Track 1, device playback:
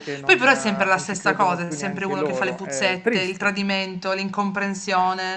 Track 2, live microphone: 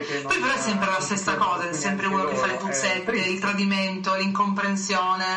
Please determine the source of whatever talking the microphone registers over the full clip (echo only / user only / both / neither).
echo only